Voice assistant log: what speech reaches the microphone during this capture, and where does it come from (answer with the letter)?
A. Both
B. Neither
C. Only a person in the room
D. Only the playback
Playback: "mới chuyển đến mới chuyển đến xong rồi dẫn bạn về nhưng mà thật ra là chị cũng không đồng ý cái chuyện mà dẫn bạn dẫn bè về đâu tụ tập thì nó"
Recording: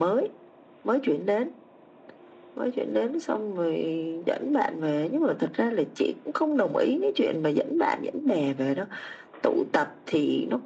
D